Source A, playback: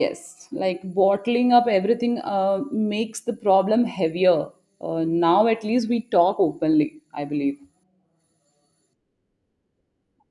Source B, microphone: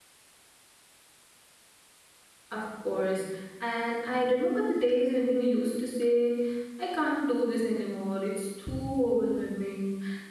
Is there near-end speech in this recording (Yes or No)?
Yes